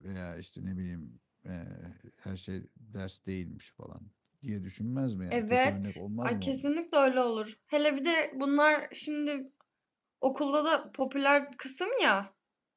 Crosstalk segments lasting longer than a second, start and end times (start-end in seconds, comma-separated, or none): 5.3-6.7